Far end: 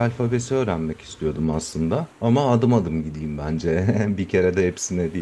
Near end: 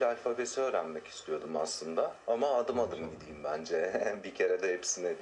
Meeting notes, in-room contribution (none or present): present